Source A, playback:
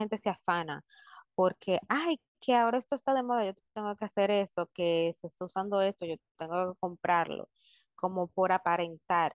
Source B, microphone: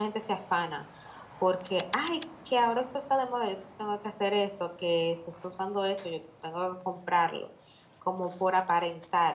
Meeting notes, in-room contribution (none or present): none